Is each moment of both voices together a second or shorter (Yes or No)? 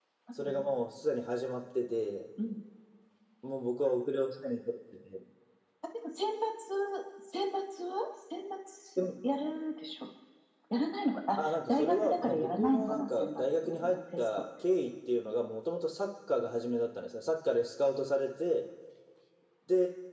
No